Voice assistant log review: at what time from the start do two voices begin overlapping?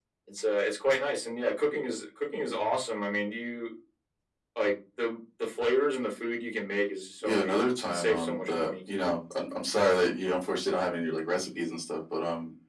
7.2 s

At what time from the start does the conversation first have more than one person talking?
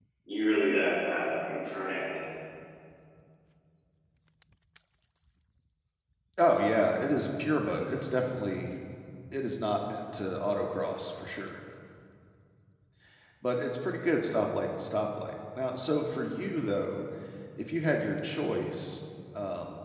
none

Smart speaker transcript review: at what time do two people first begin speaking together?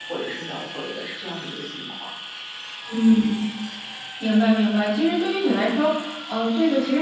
none

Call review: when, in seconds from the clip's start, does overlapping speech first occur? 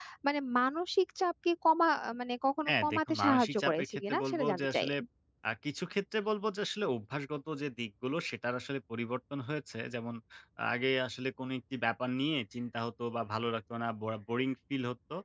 2.6 s

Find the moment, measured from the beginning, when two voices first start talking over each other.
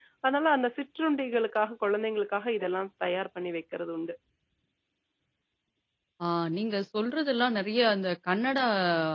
none

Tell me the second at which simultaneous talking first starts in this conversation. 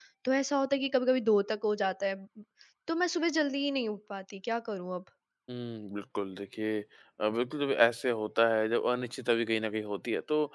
none

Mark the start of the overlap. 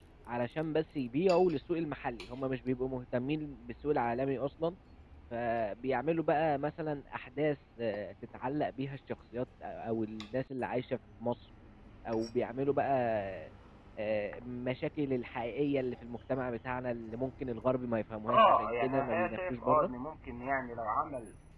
18.3 s

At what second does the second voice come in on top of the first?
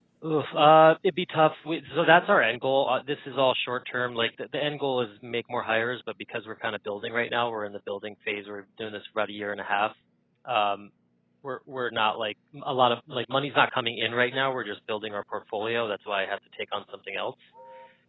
none

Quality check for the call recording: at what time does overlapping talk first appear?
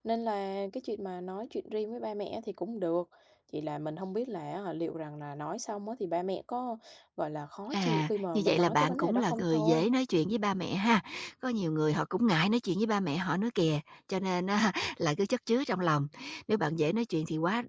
7.7 s

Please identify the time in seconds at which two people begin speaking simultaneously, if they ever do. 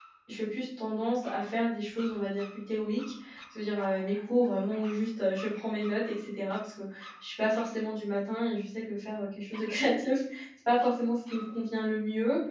none

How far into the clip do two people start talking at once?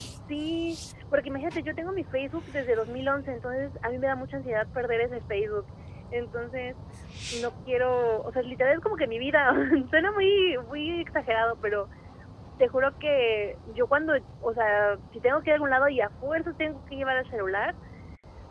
none

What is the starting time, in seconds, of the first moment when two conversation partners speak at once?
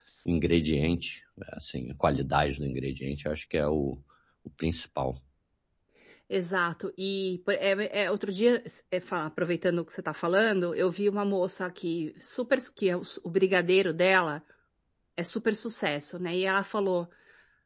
none

